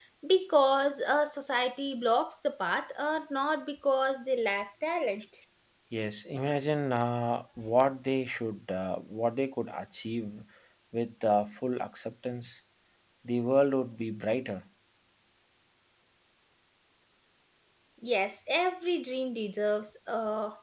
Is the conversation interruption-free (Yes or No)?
Yes